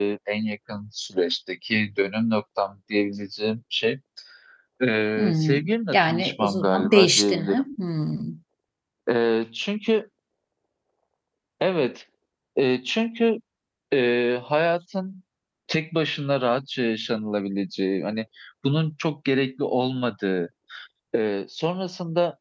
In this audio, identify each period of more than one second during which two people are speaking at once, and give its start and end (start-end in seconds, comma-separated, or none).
5.2-7.6